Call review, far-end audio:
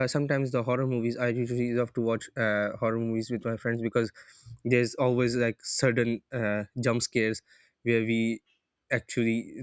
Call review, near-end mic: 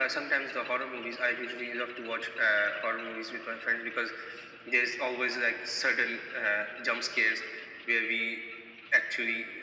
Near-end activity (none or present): none